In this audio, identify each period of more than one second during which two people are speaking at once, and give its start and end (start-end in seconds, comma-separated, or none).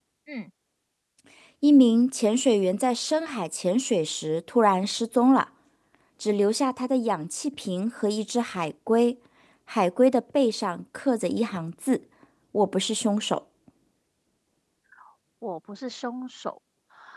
none